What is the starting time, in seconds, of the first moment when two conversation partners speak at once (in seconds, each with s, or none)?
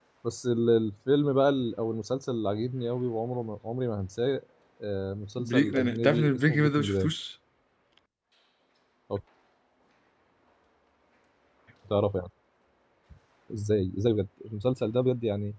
5.4 s